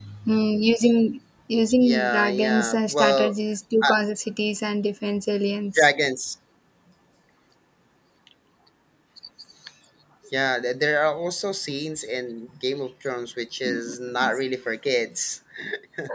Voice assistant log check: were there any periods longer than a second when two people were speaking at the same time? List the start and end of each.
1.8-3.4

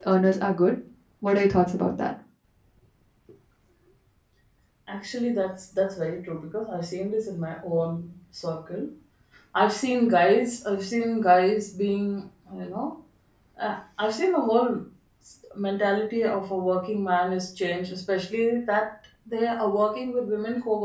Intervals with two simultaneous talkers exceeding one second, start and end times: none

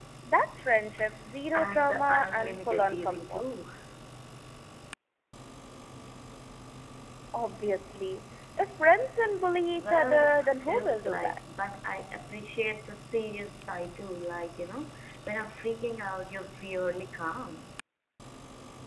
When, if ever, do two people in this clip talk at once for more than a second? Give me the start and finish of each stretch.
1.6-3.4, 9.8-11.4

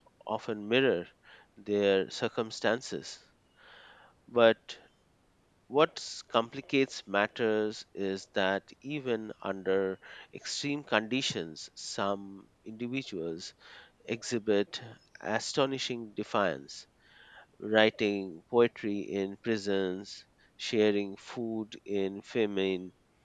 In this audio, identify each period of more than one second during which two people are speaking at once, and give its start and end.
none

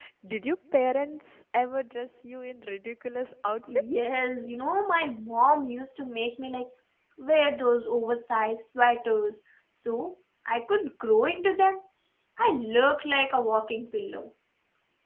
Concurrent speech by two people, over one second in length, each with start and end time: none

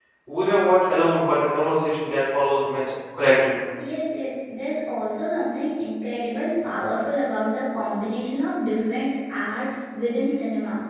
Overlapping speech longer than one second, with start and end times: none

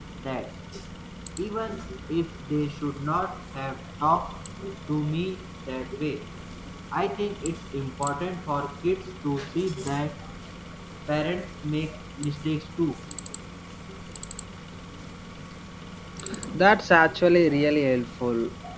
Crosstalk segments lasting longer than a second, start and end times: none

